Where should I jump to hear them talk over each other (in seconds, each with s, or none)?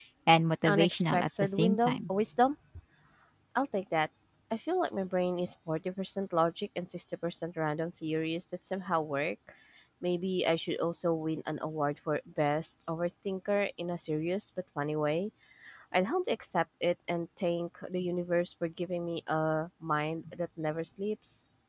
0.6 s